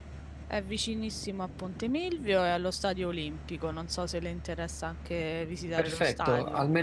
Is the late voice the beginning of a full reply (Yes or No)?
Yes